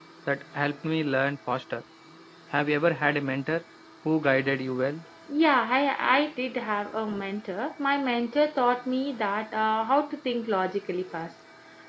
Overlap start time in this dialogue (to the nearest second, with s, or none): none